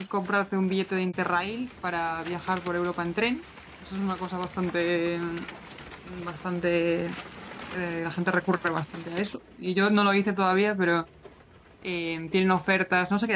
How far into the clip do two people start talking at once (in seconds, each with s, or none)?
none